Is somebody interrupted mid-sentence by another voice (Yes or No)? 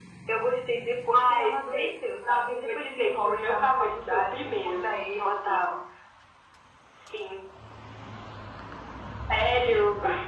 Yes